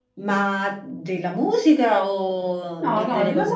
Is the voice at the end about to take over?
Yes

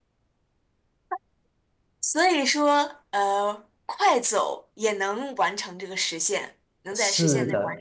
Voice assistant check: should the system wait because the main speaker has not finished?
No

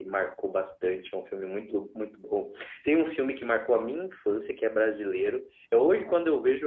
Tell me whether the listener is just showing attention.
Yes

